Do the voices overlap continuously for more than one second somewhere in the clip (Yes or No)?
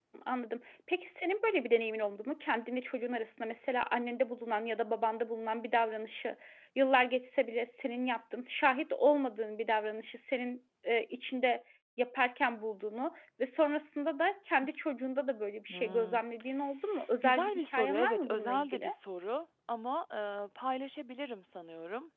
Yes